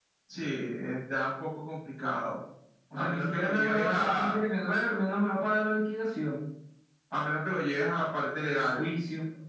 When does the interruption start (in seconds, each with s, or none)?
3.0 s